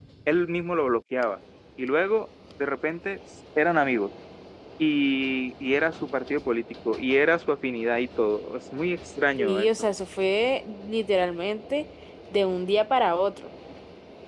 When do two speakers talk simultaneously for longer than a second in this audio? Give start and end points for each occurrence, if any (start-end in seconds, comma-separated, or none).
none